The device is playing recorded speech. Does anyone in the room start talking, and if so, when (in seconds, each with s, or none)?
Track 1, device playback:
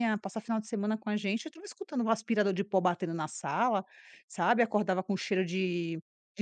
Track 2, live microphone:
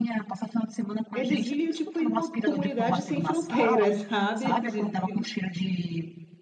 1.1 s